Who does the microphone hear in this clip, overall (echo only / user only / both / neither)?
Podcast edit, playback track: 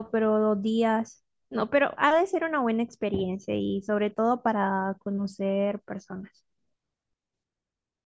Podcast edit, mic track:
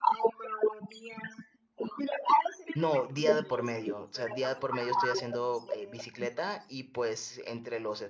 both